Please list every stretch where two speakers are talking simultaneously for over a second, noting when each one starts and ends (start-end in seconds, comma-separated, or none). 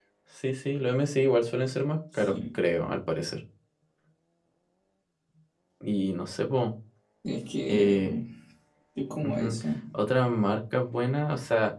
none